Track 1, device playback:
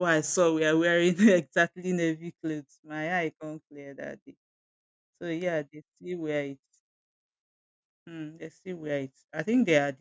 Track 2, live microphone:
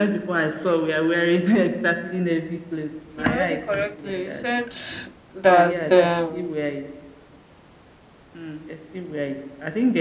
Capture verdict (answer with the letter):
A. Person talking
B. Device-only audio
A